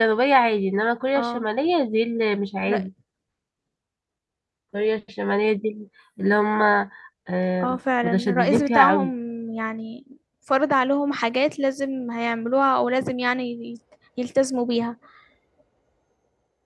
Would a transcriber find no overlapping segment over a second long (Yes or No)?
No